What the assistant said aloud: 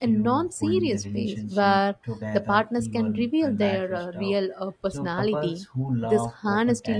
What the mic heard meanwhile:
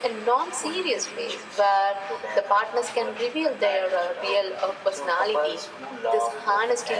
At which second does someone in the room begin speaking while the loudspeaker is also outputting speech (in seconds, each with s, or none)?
none